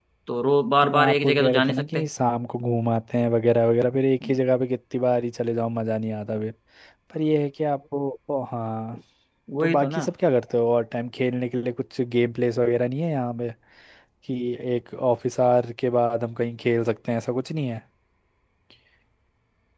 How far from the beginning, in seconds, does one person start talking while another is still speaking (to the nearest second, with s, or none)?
1 s